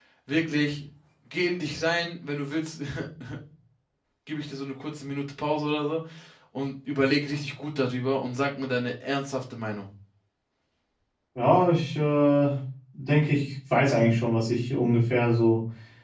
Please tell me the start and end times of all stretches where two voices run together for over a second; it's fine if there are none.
none

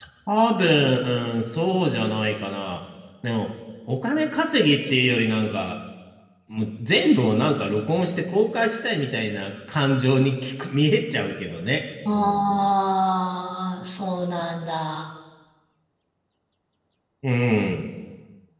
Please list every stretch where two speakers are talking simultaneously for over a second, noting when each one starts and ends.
none

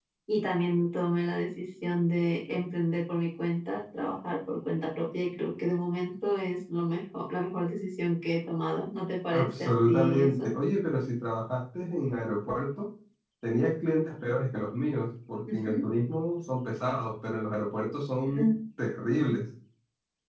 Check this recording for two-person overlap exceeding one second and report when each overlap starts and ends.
9.3-10.5

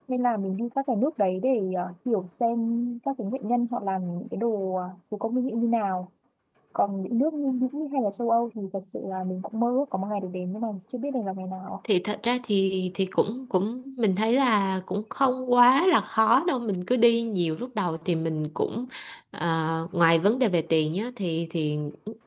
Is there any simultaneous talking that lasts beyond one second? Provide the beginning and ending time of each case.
none

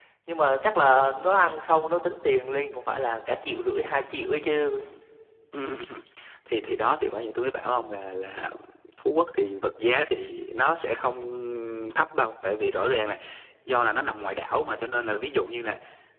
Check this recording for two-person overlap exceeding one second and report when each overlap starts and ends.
none

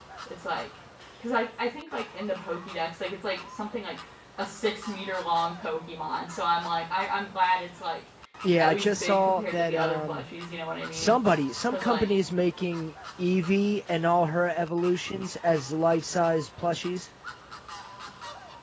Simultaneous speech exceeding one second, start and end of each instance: 8.6-10.2

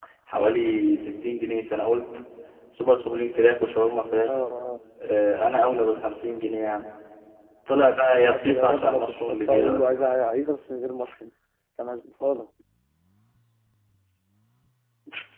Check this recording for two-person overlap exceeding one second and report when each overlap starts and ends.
8.2-9.8

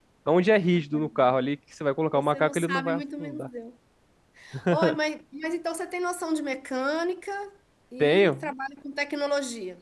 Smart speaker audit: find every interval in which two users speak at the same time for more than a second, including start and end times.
2.1-3.5

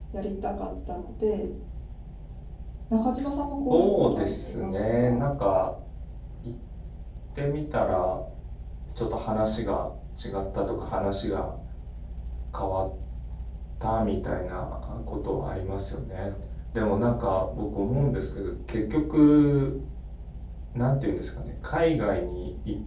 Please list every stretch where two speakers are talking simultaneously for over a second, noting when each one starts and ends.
3.7-5.2

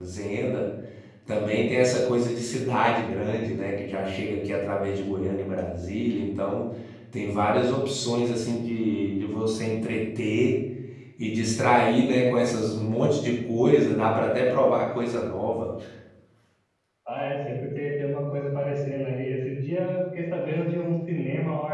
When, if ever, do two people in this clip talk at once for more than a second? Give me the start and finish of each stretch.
none

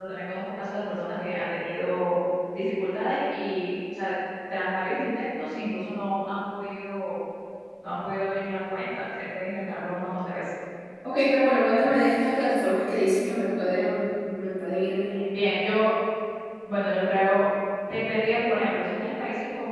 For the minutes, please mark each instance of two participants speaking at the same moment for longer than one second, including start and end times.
none

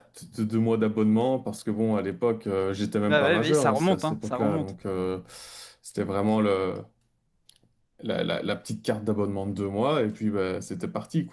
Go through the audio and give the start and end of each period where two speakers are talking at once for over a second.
3.1-4.7

